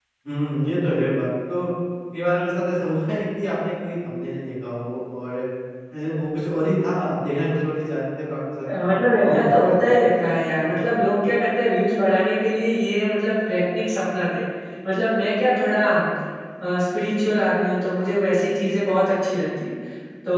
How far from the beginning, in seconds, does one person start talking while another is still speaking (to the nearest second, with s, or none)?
9 s